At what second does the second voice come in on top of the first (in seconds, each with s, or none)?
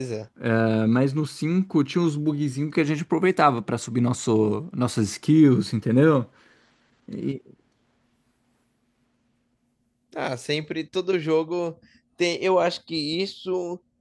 none